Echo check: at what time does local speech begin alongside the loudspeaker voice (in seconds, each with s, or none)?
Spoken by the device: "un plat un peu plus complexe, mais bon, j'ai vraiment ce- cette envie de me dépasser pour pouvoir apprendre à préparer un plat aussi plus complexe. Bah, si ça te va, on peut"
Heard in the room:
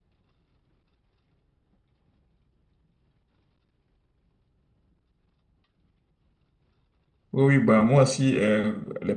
7.3 s